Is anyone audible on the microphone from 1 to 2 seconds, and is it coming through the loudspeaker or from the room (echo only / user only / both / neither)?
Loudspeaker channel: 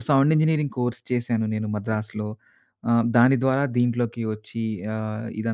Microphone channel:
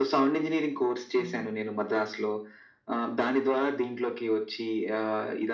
both